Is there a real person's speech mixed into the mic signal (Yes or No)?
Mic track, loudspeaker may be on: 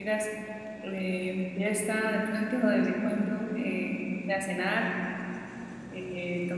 Yes